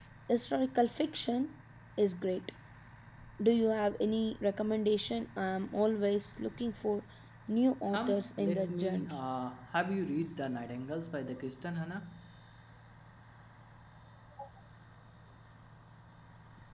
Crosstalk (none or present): present